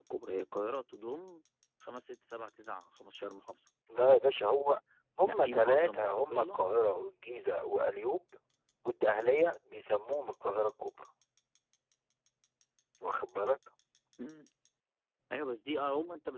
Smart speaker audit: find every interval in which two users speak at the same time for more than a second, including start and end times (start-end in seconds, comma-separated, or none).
5.2-6.6